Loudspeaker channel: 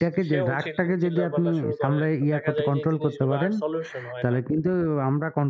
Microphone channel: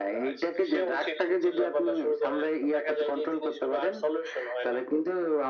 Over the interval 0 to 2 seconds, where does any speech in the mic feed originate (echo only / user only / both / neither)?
echo only